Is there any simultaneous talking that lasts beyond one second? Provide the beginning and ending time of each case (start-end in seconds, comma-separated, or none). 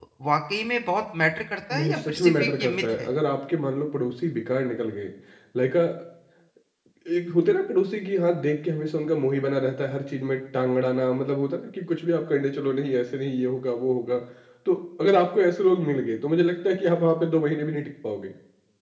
1.7-3.1